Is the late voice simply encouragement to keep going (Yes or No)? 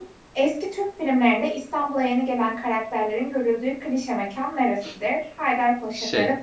Yes